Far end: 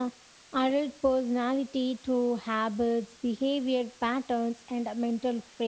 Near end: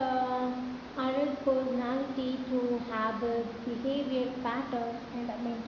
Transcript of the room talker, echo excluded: none

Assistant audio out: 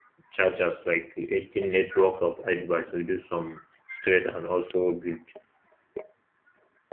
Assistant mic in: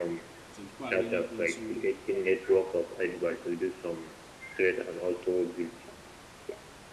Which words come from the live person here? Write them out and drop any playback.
some people are really into

